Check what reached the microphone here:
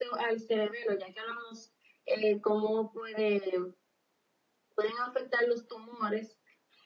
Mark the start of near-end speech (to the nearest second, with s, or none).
none